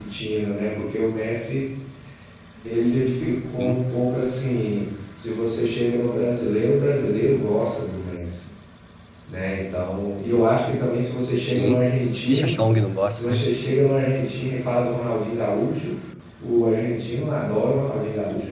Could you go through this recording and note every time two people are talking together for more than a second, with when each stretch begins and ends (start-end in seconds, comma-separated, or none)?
none